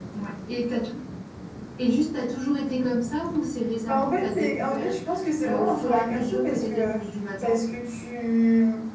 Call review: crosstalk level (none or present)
present